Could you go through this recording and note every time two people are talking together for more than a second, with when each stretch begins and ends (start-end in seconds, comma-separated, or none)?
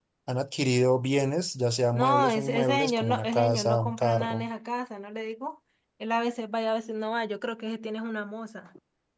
1.9-4.5